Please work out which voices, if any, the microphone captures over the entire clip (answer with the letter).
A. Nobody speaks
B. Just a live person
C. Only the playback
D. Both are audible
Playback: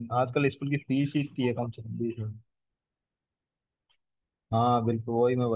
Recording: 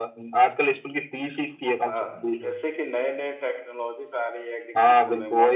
D